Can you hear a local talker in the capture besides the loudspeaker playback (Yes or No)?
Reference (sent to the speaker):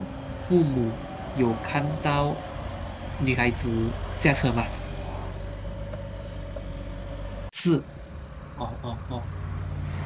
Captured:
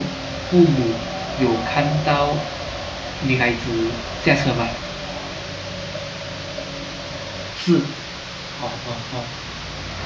No